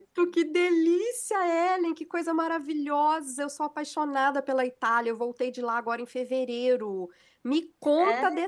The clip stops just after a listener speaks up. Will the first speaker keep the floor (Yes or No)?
Yes